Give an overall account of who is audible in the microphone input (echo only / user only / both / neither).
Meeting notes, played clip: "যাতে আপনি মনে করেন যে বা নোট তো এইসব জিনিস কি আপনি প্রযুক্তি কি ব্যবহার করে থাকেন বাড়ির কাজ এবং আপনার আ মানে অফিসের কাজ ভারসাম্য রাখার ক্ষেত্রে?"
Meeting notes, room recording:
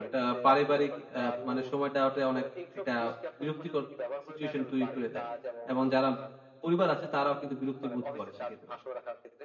both